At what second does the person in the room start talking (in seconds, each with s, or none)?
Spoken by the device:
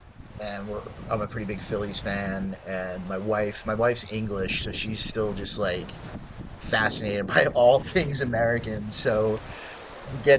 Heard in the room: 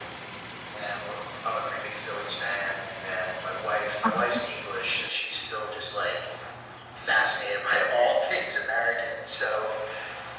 4.0 s